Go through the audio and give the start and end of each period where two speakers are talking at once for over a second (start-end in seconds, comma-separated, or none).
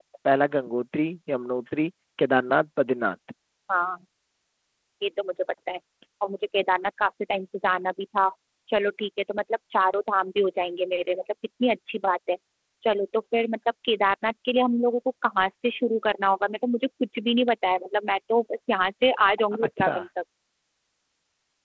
none